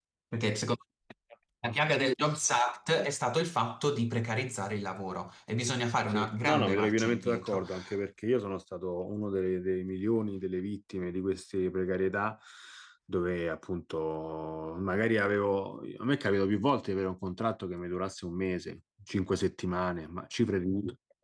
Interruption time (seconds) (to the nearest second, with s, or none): 6 s